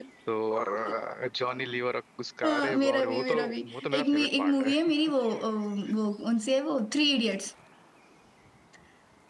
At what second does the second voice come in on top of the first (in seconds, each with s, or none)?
2.4 s